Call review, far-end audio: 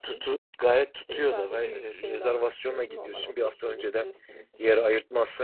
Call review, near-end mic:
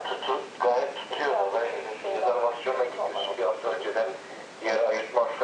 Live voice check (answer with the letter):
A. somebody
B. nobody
B